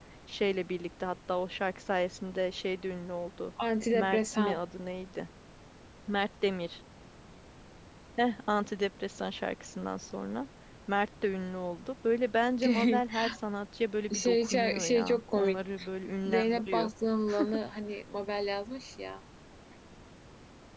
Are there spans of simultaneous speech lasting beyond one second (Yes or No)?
Yes